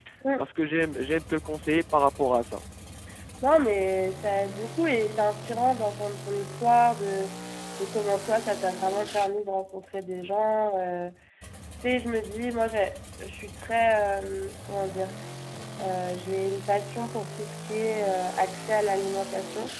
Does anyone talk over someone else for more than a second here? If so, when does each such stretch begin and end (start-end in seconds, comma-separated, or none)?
none